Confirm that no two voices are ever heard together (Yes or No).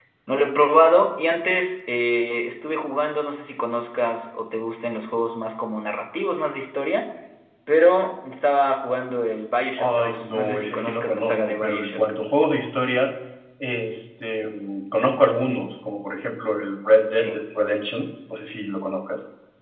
No